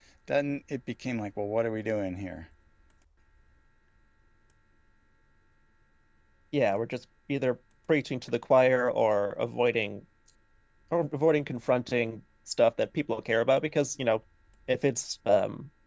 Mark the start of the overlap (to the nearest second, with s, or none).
none